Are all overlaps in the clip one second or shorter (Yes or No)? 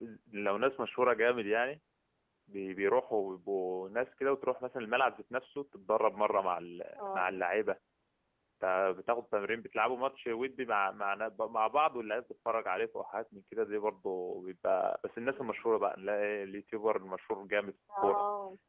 Yes